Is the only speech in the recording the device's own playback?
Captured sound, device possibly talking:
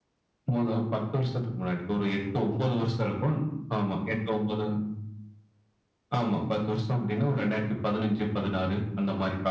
Yes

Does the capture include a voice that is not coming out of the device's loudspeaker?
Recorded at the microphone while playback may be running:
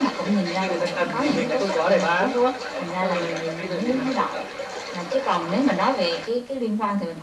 No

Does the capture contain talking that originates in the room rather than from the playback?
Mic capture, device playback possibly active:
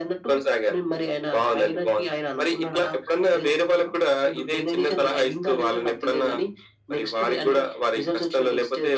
No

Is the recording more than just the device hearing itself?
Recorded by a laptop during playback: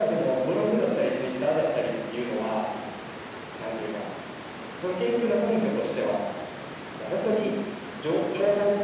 No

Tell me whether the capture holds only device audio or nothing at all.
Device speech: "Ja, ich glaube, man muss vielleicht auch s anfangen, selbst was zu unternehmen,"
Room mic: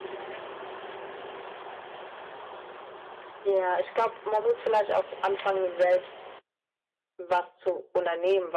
Yes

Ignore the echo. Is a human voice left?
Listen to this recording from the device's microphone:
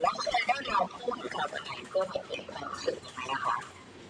No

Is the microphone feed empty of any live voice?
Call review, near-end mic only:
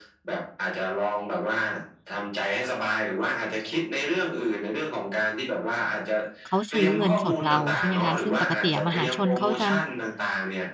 No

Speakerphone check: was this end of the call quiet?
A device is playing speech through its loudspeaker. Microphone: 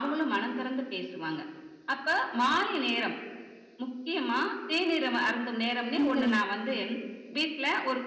No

